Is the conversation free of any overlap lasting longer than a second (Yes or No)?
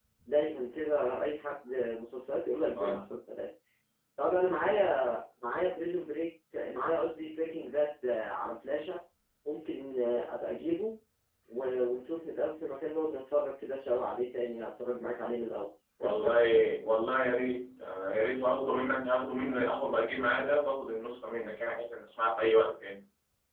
Yes